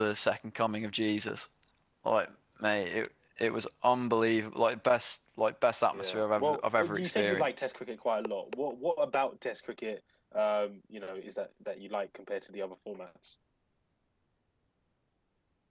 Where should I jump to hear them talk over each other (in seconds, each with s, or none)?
5.9 s